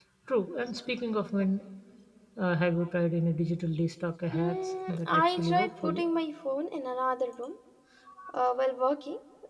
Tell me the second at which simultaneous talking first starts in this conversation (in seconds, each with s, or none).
4.3 s